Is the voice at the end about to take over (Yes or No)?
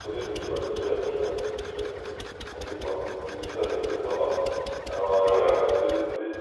No